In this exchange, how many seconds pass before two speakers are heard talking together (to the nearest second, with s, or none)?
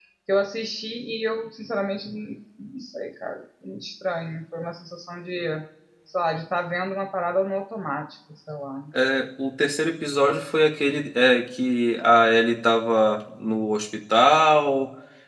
none